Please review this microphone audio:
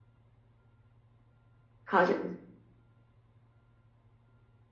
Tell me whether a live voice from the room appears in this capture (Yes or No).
Yes